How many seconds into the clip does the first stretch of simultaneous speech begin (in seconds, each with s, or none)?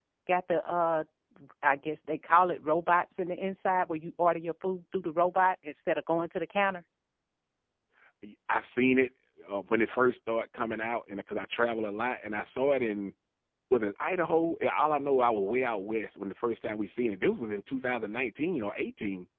none